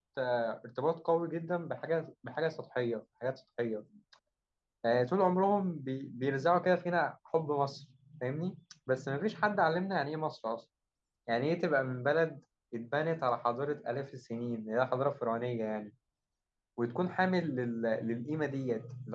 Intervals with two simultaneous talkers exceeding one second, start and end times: none

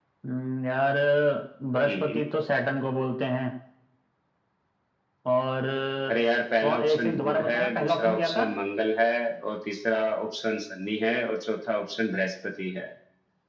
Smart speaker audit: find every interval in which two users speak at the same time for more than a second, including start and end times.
6.6-8.4

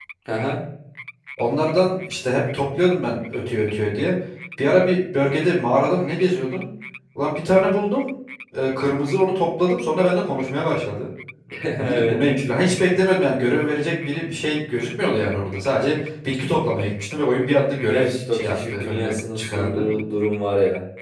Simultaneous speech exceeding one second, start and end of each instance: 17.9-19.9

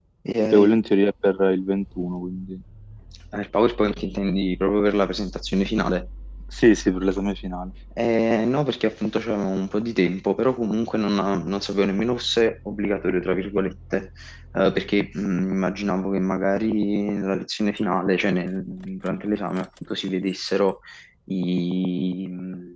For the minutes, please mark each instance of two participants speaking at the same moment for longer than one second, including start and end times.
none

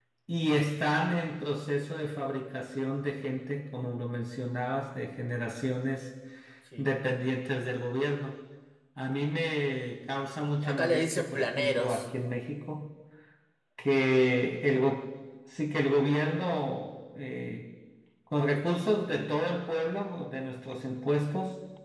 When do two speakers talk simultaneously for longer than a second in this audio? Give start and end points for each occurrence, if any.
10.6-12.1

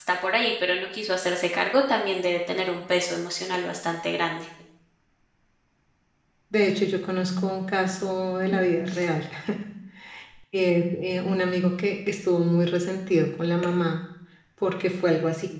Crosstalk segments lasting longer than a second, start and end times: none

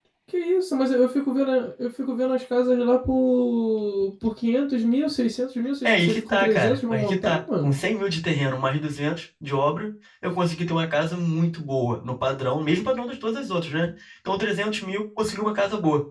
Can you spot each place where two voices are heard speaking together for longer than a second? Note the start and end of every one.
5.8-7.8

